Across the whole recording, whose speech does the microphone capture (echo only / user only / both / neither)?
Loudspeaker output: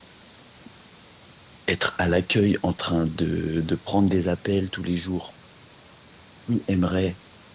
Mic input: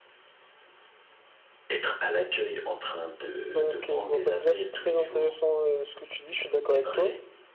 both